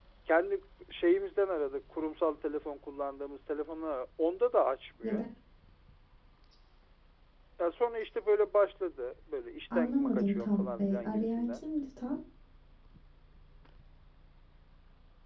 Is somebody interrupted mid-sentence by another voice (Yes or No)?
Yes